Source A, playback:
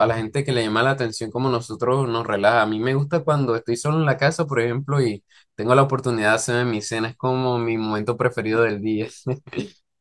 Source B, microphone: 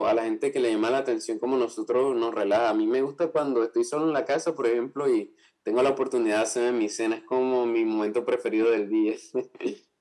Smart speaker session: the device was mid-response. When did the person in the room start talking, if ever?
none

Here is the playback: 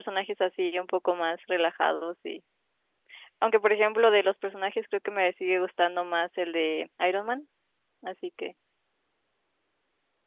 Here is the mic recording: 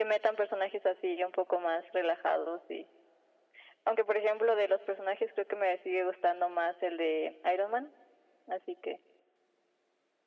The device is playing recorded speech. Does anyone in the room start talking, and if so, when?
none

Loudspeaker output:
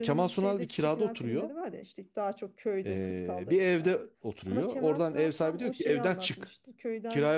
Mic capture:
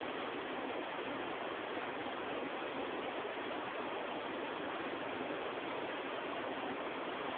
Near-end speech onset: none

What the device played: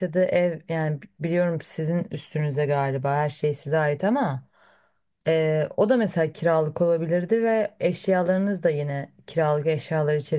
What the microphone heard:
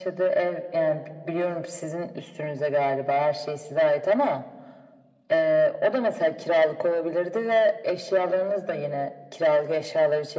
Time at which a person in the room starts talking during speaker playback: none

